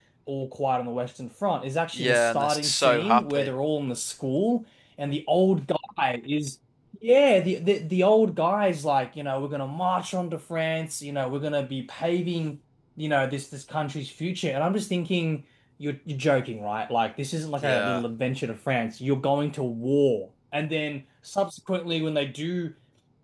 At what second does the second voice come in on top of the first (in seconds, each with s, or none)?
1.9 s